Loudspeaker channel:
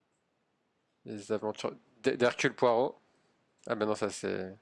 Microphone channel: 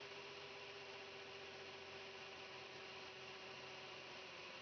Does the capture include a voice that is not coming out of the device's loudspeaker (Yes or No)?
No